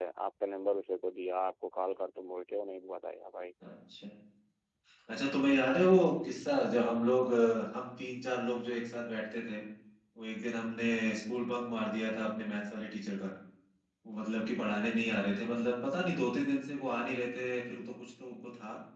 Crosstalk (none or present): none